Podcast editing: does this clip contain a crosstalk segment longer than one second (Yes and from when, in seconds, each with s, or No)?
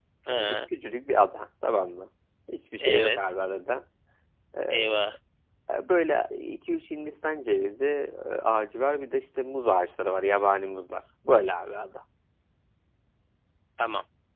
No